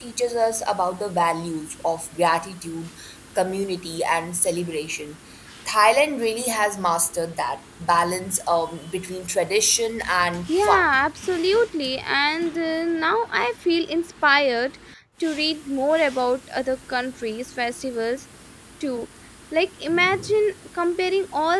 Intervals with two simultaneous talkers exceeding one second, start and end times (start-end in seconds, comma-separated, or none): none